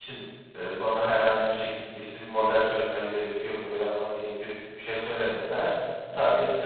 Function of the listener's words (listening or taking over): listening